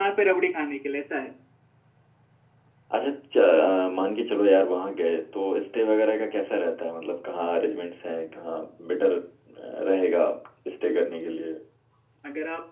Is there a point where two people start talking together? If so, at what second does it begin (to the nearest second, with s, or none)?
none